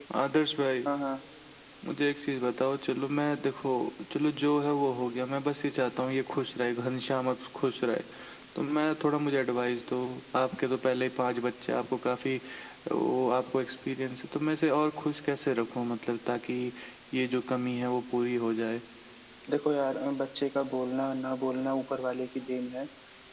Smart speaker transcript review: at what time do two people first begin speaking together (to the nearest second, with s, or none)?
none